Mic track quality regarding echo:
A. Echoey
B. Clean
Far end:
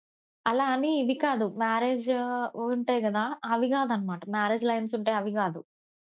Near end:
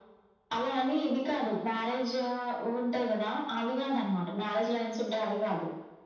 A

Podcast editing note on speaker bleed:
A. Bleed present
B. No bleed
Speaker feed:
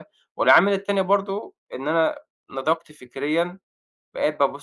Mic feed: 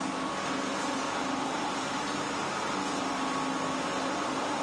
B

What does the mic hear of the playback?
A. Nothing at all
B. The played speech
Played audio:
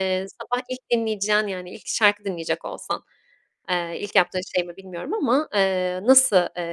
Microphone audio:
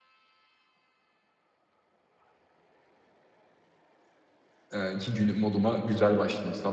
A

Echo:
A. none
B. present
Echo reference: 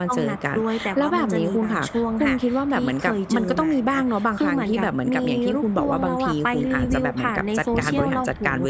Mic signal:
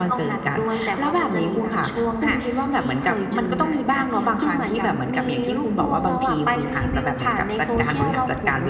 B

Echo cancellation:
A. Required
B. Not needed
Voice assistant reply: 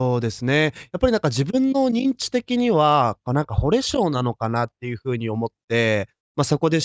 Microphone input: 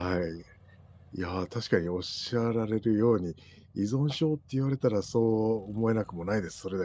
B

